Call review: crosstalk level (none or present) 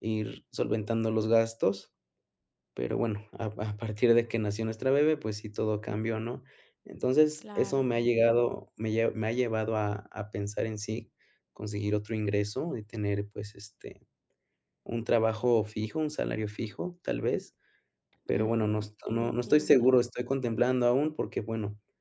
present